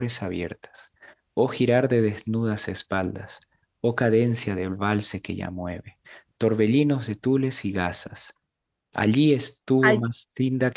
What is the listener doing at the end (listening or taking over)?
listening